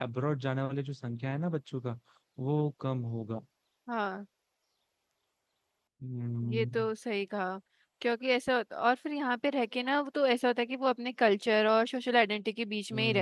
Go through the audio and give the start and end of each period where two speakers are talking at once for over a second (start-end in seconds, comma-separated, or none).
none